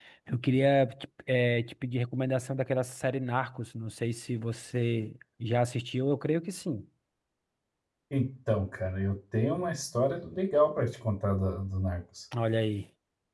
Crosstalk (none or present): none